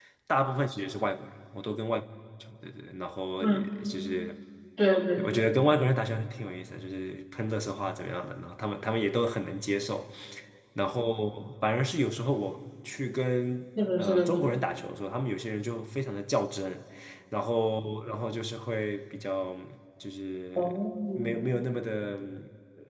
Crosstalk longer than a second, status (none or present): none